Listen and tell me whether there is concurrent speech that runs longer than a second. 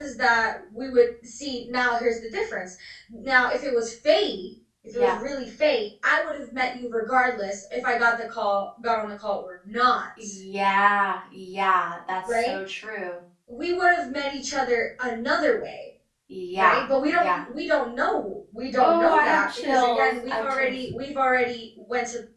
Yes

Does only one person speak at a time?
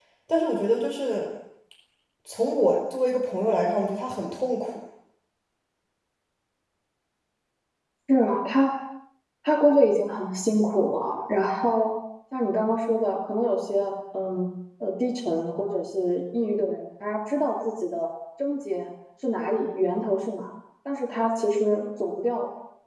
Yes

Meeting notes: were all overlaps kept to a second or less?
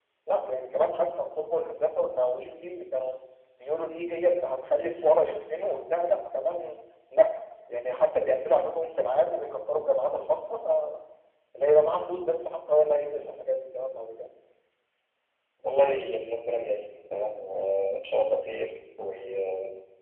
Yes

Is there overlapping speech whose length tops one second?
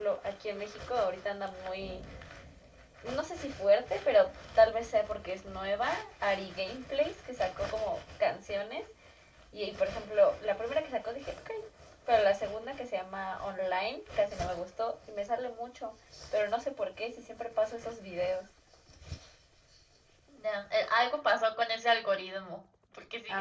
No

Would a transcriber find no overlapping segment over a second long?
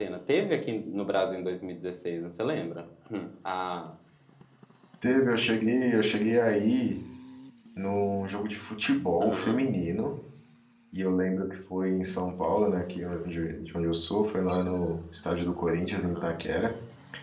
Yes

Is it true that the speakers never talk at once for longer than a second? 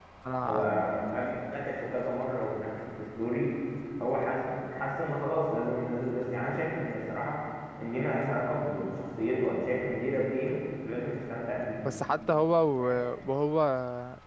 Yes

